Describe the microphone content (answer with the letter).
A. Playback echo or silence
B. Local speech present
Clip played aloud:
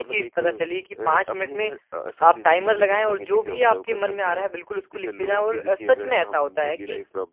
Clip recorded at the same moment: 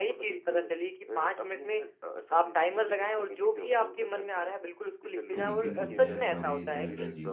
B